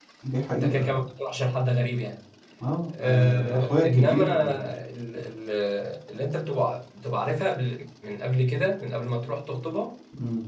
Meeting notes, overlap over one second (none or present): present